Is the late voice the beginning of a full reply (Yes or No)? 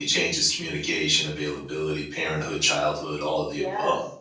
Yes